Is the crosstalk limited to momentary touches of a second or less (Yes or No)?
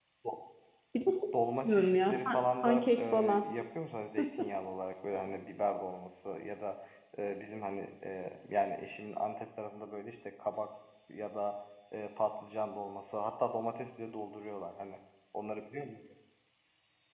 No